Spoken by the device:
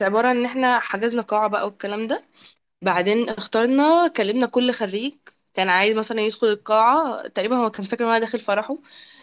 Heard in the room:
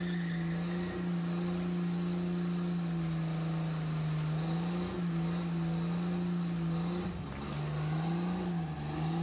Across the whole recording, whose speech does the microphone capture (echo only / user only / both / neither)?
neither